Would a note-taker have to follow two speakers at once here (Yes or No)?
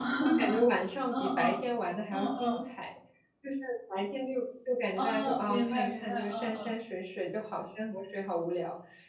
Yes